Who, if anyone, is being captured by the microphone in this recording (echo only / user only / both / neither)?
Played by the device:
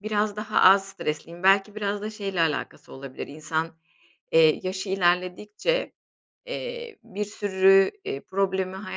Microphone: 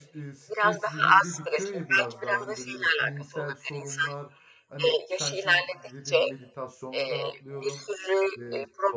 both